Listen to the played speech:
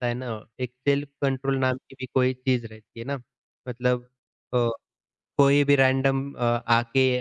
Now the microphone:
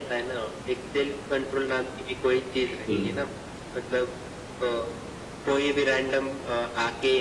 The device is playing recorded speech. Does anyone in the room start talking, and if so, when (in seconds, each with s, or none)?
2.6 s